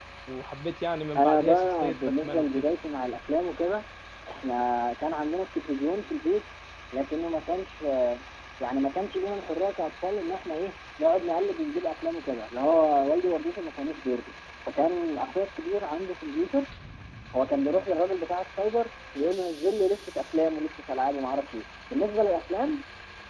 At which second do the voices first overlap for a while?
1 s

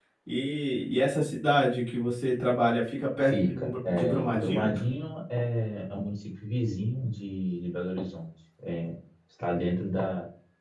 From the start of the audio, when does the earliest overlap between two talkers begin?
3 s

